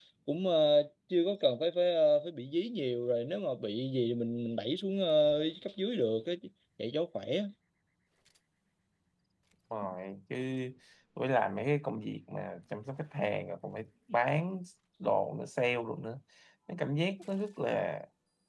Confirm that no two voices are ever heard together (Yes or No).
Yes